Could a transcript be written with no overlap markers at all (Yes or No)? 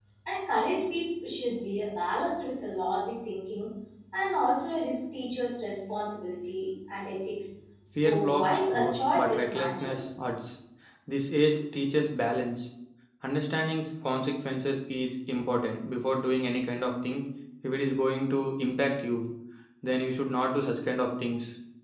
No